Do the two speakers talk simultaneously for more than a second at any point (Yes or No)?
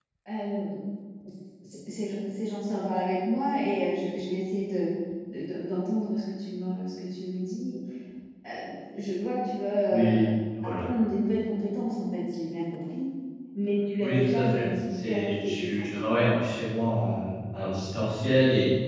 Yes